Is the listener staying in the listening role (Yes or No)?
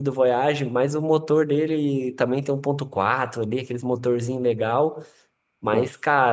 Yes